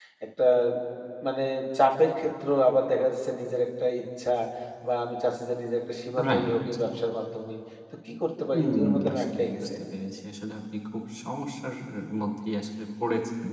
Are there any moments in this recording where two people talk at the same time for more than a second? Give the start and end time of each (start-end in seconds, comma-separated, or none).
8.5-9.8